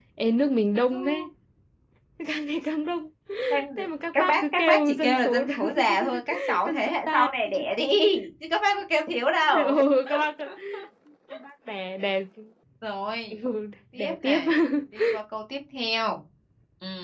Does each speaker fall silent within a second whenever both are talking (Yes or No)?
No